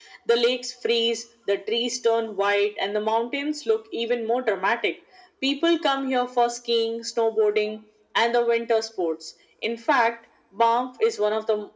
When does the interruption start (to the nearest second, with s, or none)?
none